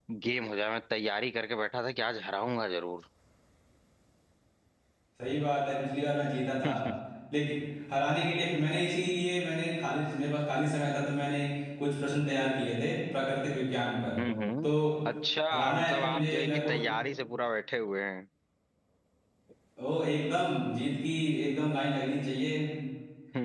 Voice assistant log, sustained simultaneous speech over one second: present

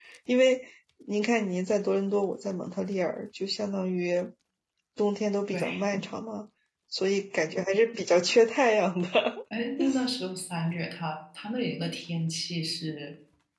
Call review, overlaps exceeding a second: none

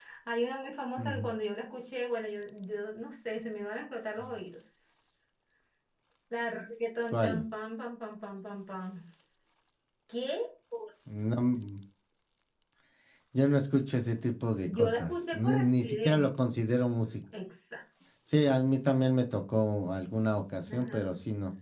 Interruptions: present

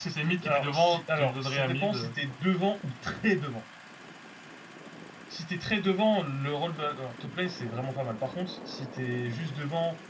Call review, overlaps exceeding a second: present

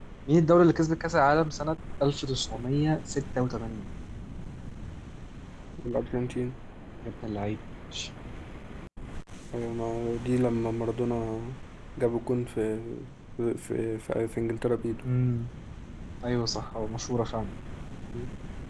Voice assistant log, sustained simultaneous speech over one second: none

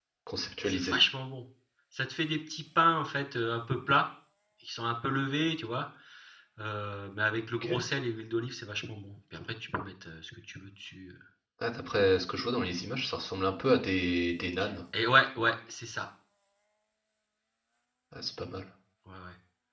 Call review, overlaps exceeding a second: none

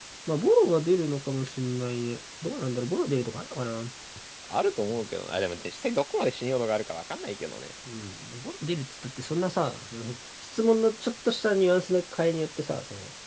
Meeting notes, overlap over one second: none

